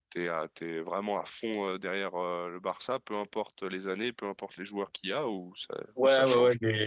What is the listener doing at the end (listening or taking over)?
taking over